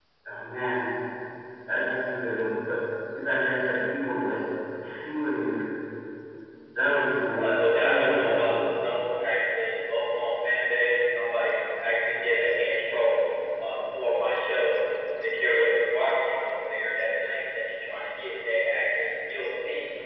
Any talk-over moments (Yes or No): Yes